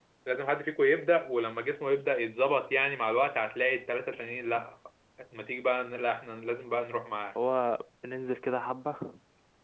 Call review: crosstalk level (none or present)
none